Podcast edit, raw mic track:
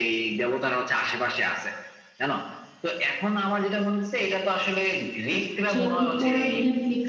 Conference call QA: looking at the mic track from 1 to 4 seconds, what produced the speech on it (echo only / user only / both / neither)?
echo only